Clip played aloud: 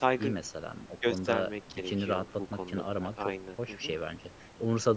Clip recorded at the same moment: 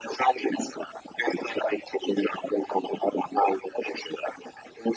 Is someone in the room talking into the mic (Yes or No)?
No